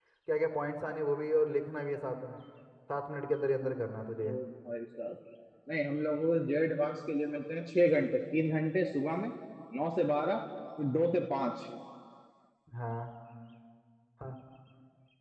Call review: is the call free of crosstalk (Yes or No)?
Yes